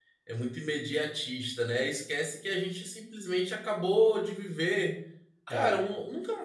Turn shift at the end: No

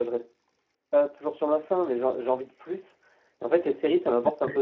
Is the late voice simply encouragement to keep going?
Yes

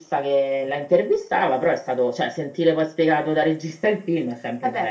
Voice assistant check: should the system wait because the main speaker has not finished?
No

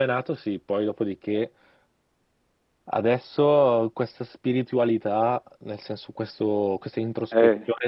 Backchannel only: Yes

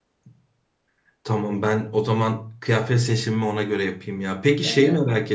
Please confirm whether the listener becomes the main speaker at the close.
No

